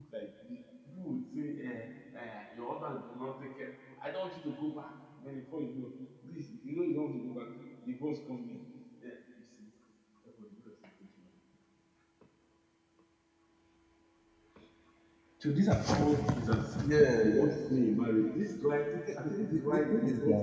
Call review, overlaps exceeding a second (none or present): present